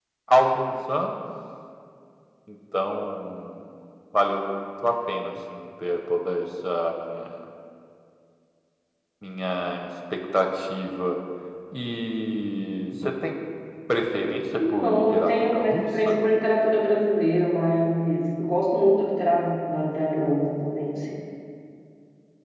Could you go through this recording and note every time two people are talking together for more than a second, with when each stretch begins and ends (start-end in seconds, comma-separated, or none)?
14.7-16.2